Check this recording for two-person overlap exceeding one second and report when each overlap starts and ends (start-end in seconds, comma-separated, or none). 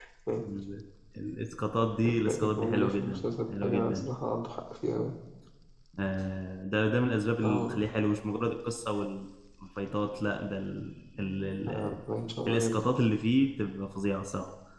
2.0-4.1